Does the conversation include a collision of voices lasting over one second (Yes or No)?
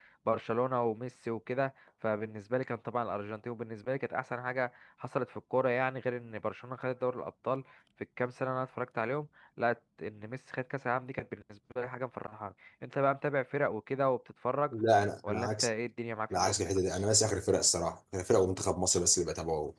No